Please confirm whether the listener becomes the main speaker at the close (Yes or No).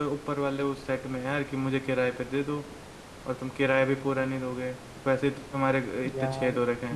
Yes